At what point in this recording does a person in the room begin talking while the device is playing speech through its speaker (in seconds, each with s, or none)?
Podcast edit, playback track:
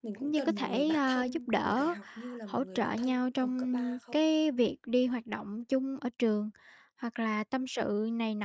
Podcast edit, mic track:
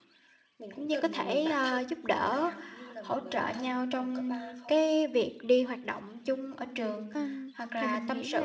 7.1 s